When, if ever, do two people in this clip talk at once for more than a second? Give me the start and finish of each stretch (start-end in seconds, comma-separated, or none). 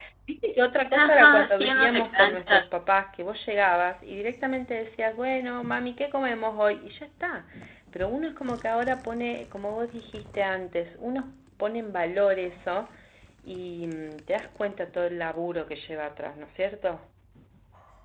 0.9-2.6